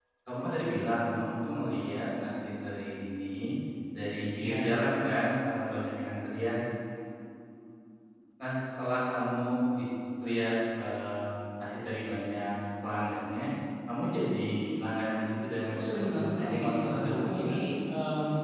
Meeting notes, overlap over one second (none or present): present